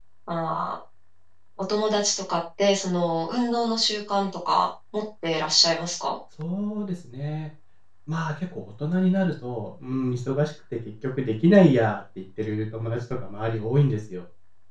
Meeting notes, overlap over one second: none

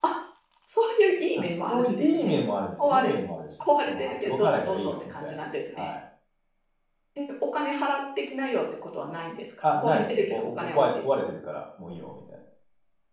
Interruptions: present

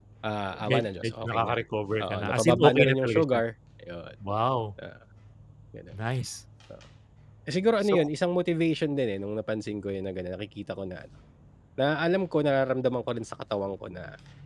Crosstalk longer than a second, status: present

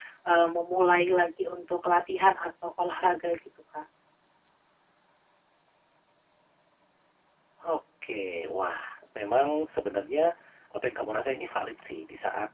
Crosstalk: none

